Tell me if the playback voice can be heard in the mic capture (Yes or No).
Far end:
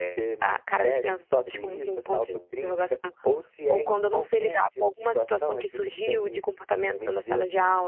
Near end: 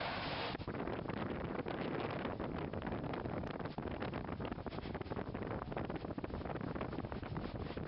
No